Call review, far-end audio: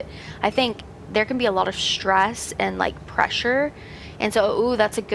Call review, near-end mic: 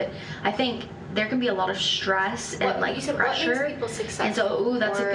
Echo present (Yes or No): Yes